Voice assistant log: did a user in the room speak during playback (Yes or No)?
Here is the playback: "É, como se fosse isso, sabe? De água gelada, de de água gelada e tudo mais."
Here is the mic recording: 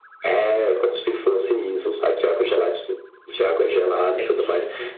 Yes